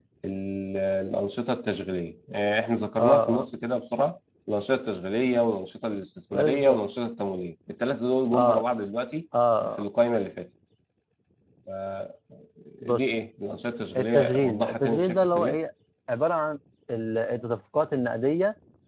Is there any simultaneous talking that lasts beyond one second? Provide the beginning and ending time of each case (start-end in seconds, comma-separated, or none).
14.0-15.6